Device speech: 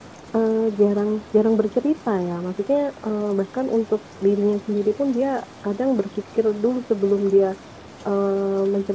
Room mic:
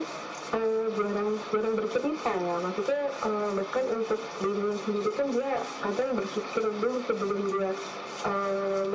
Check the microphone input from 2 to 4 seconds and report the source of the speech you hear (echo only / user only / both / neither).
echo only